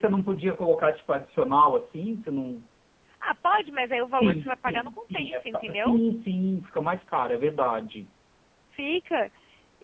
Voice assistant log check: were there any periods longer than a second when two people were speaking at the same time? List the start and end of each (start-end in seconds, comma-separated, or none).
4.2-5.9